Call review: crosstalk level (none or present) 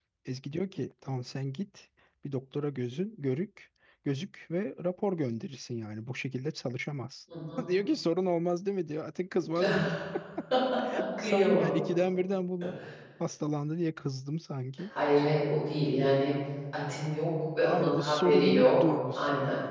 present